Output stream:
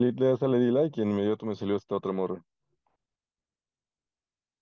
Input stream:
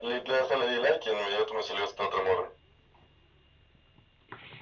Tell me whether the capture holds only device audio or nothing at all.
Yes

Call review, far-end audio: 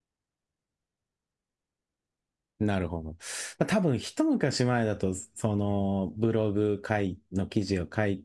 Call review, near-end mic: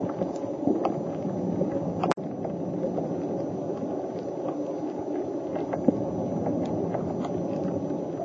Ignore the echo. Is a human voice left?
No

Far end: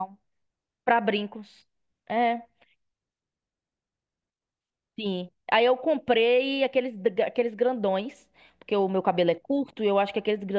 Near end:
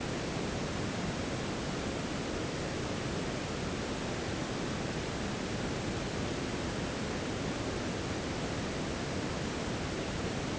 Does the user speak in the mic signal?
No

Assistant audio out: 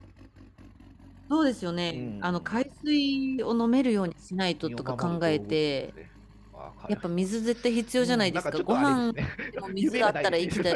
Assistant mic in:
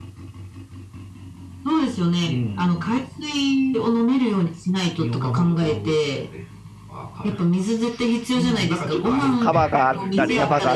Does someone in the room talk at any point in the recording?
Yes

